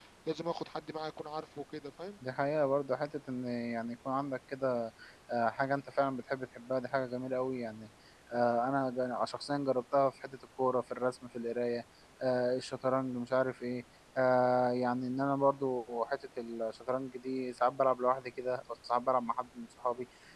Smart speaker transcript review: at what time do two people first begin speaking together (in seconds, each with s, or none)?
none